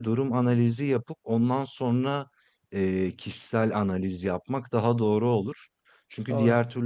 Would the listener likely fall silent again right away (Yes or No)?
Yes